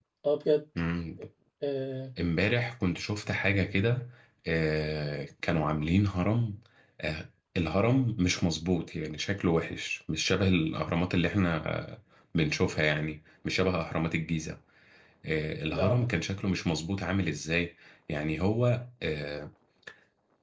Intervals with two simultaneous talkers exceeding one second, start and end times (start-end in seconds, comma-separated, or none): none